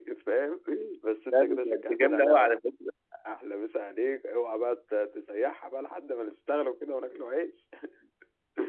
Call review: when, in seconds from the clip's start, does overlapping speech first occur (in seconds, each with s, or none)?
1.3 s